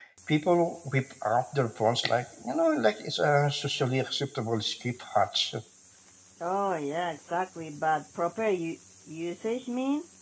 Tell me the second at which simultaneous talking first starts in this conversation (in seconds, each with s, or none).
none